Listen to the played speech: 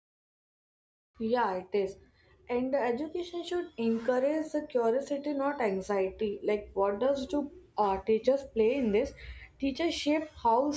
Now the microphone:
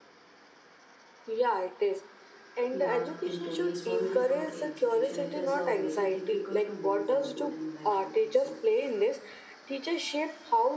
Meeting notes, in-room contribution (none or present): present